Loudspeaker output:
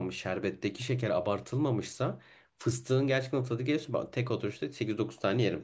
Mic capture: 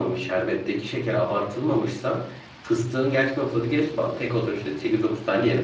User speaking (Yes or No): No